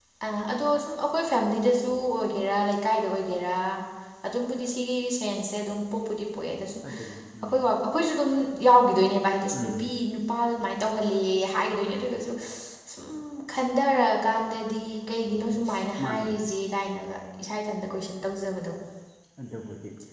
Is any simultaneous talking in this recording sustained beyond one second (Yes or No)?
No